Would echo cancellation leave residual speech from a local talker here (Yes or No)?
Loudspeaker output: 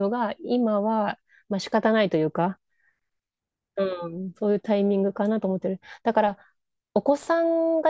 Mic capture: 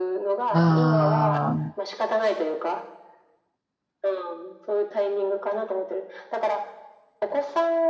Yes